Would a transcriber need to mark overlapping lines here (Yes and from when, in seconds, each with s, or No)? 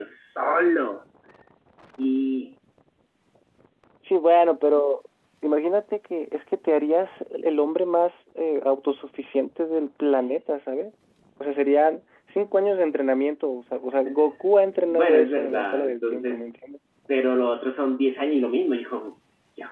Yes, from 14.9 s